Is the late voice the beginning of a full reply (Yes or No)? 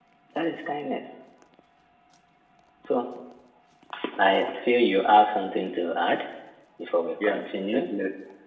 Yes